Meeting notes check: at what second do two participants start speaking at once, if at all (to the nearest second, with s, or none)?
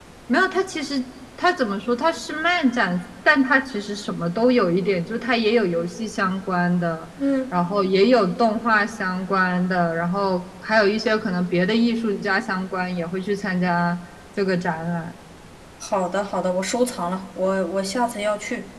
none